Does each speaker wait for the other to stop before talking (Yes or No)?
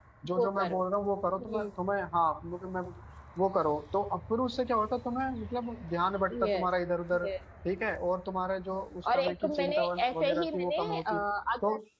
No